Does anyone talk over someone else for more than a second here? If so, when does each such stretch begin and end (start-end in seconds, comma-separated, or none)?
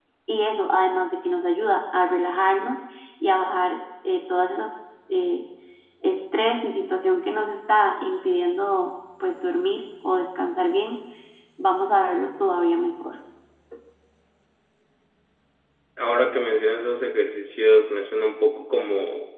none